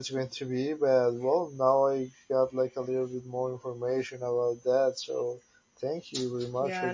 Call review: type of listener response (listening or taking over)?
taking over